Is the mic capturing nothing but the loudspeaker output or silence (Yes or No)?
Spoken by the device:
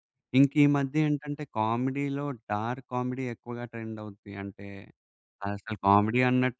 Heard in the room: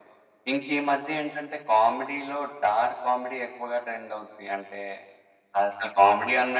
Yes